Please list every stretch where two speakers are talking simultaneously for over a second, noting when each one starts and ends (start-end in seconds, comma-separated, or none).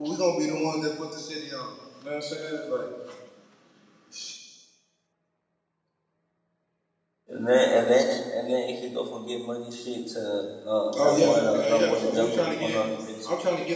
11.0-12.8